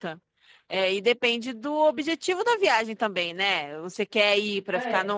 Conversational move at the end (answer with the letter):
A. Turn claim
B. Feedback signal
B